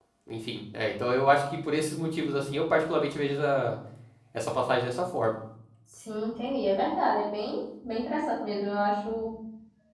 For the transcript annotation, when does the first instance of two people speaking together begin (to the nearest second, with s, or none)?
none